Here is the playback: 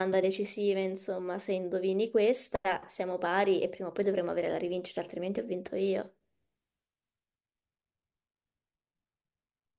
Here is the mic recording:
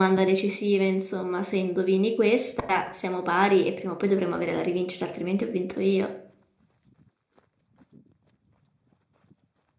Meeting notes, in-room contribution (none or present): none